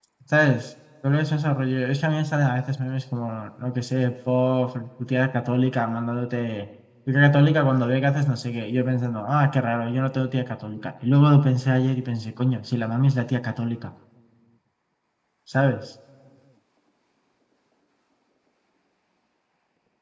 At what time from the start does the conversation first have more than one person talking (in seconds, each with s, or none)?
none